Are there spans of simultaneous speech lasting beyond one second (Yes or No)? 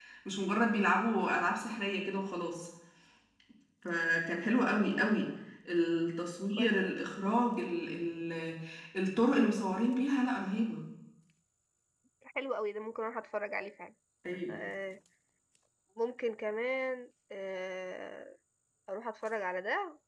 No